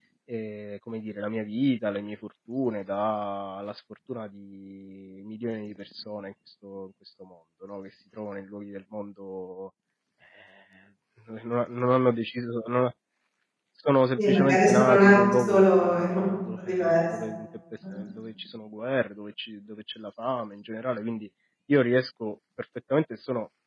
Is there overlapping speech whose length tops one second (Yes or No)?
Yes